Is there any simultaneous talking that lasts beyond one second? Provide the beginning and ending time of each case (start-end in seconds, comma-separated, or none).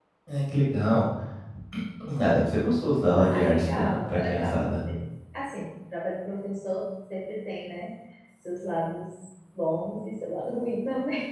3.1-4.7